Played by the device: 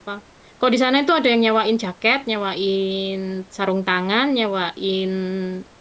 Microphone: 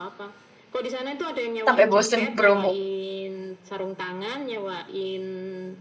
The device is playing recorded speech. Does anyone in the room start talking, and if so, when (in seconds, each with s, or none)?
1.6 s